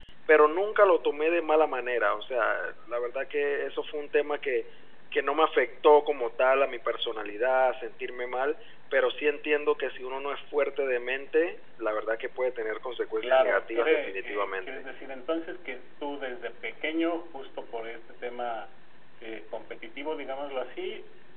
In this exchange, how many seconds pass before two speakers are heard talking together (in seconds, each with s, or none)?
13.2 s